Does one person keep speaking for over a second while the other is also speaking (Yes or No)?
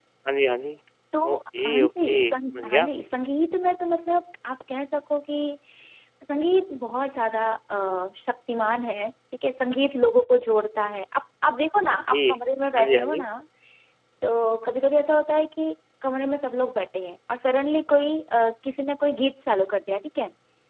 Yes